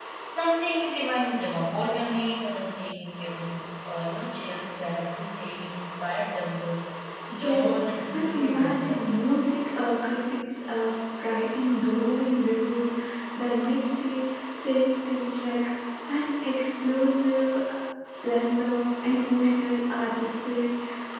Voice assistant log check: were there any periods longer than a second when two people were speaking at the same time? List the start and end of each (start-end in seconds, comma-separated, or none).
7.3-9.3